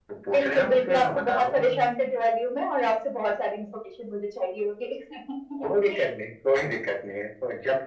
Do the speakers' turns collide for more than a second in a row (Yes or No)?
Yes